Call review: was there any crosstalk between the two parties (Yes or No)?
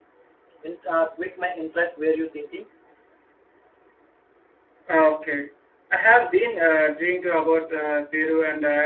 No